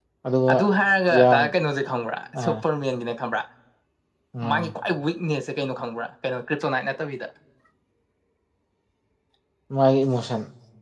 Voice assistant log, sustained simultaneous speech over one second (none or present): none